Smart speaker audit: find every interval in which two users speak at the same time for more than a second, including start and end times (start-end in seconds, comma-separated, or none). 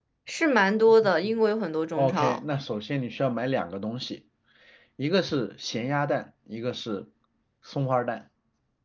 none